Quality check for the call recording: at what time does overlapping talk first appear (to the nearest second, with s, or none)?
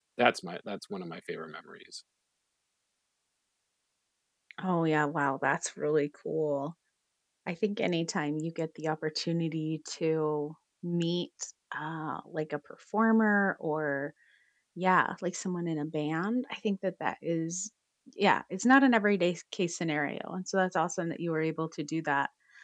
none